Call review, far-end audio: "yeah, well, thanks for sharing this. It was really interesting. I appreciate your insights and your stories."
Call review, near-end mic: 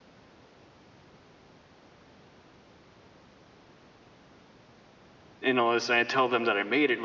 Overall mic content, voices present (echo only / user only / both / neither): user only